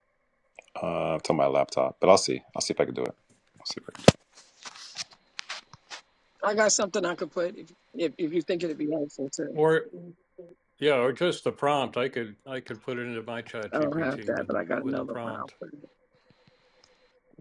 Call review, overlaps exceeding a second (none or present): present